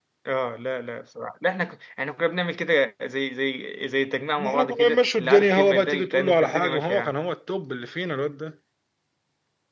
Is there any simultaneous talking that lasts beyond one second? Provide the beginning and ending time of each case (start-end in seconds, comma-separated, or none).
4.5-7.1